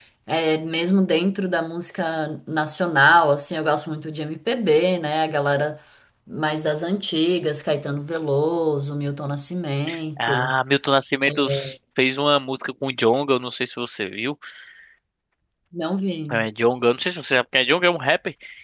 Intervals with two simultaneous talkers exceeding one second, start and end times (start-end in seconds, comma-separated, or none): none